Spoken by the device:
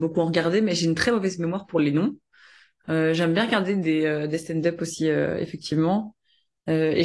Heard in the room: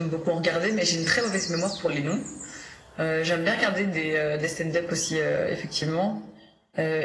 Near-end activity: none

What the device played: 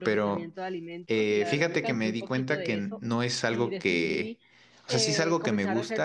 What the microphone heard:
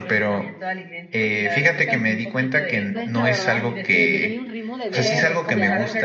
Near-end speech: present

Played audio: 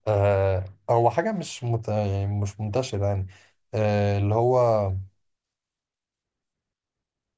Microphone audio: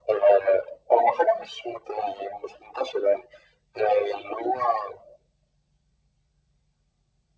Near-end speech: none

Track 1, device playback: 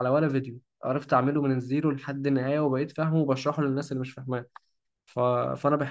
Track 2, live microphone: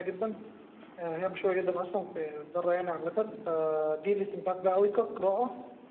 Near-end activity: present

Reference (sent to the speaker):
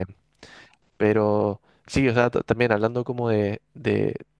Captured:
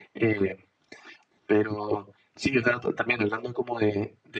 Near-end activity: none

